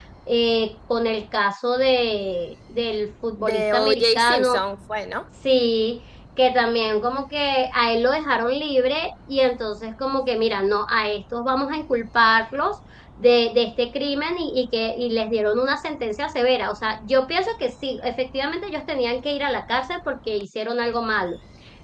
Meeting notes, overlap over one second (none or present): present